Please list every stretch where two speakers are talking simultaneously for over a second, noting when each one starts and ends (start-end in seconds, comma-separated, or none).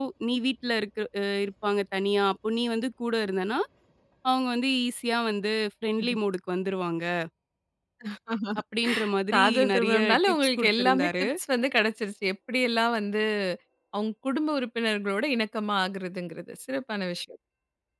9.3-11.2